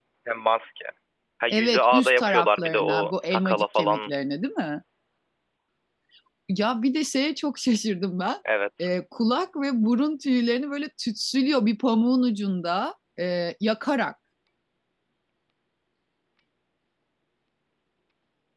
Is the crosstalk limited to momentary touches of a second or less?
No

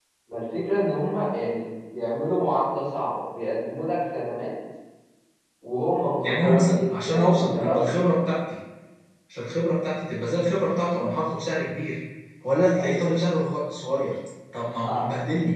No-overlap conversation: No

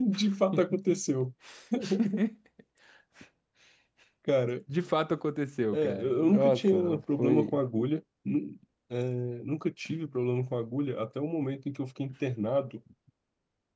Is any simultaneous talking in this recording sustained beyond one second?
Yes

